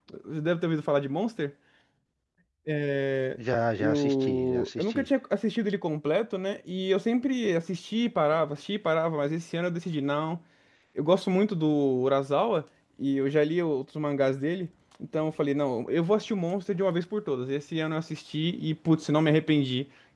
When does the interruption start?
4 s

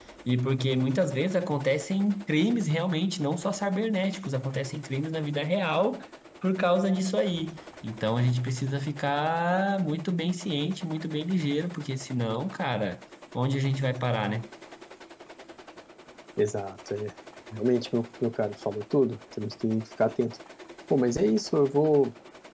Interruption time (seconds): none

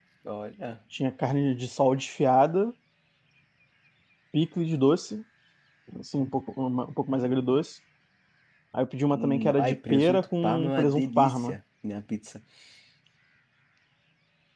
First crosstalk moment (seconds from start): 9 s

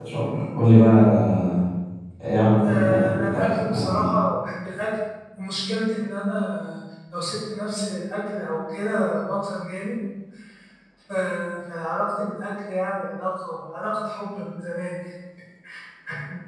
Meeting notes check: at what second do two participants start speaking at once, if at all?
3 s

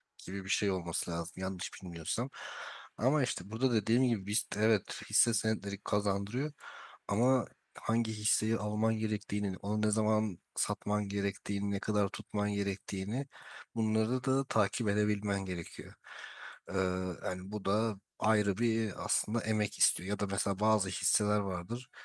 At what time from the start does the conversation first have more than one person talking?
none

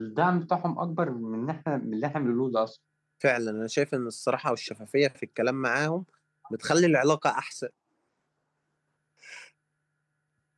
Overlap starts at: none

